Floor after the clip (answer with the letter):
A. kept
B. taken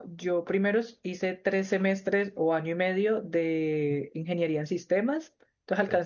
A